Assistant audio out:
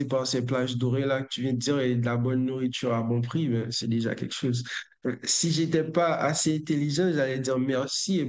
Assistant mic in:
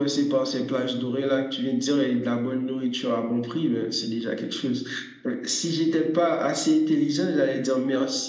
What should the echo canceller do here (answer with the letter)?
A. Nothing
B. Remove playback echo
B